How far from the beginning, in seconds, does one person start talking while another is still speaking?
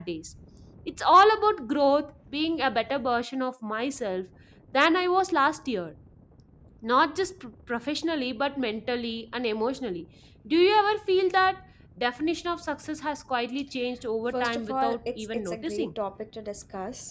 14.3 s

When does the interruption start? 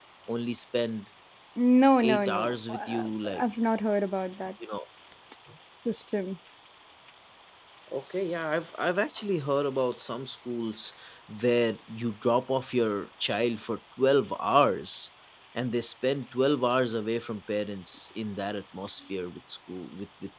2.0 s

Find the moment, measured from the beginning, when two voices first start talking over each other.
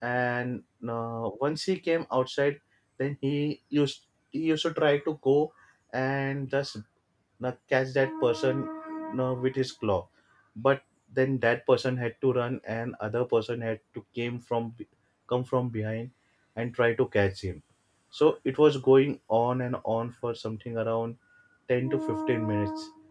none

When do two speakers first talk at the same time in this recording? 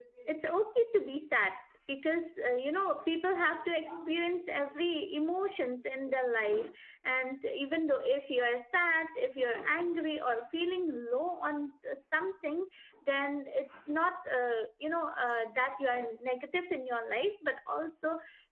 none

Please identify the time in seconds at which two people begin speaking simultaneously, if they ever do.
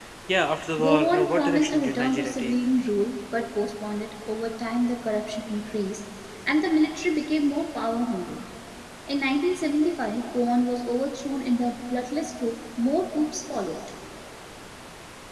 0.8 s

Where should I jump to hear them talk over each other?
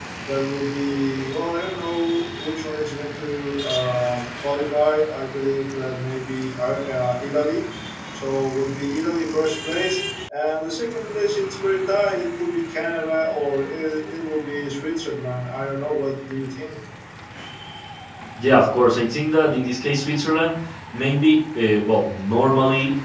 none

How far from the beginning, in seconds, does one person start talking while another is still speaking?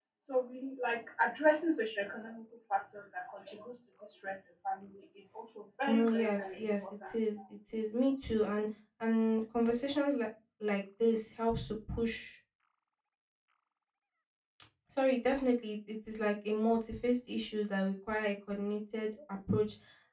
5.8 s

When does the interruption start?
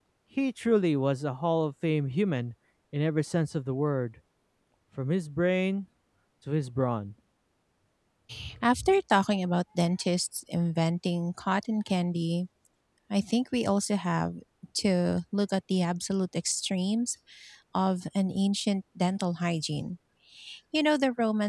none

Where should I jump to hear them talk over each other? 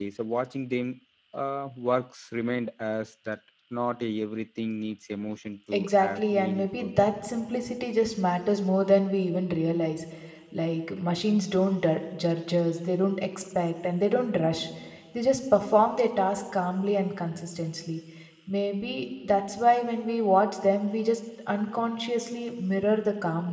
5.7 s

